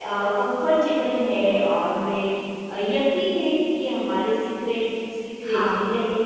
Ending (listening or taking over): listening